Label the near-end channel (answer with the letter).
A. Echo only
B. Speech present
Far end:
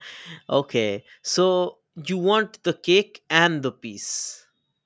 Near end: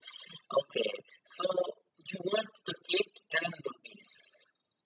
A